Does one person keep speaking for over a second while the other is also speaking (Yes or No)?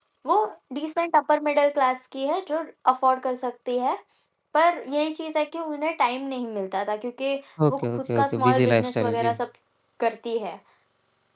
Yes